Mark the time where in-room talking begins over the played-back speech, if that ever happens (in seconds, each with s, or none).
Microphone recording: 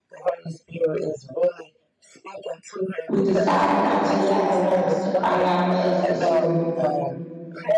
3.1 s